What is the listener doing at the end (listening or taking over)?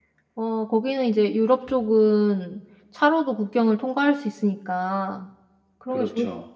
listening